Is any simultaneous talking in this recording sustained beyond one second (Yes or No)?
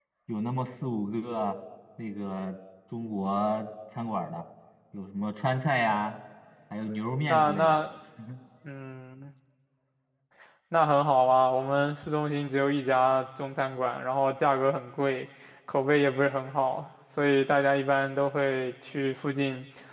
No